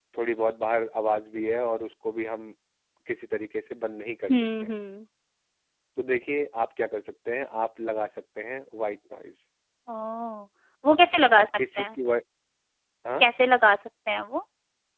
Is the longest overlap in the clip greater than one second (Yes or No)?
No